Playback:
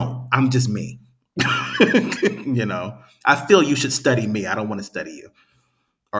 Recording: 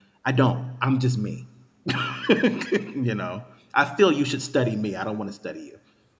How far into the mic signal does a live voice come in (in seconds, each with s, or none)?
none